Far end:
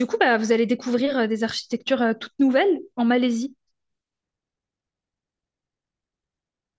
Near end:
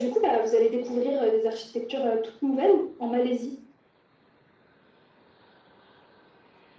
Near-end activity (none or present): none